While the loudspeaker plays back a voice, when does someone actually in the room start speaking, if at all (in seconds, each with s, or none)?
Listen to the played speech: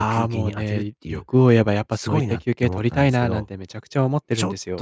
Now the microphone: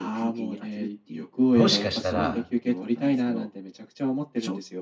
1.5 s